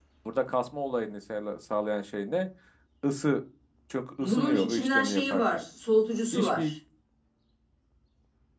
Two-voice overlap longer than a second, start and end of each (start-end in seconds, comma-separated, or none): 4.2-5.6